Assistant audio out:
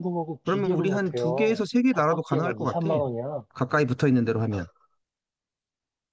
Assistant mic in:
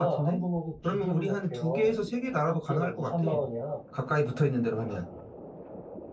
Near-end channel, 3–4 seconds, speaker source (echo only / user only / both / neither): echo only